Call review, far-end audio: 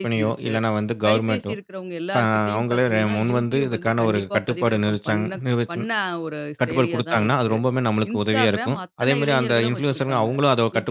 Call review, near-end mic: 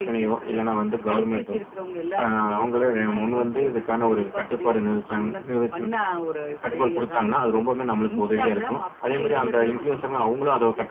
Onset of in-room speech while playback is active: none

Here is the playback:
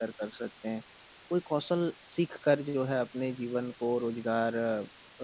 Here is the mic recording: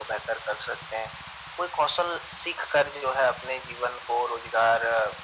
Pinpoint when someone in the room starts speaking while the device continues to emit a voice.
none

